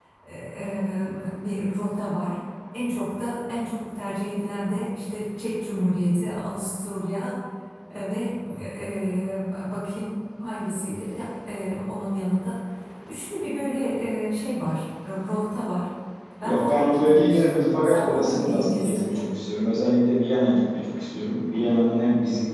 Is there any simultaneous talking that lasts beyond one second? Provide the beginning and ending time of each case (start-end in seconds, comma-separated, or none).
16.4-19.2